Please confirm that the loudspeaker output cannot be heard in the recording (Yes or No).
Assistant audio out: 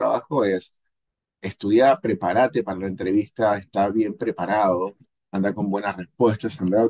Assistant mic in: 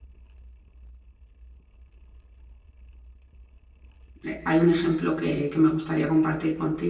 Yes